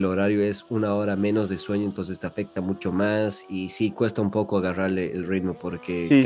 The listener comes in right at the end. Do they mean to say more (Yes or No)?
Yes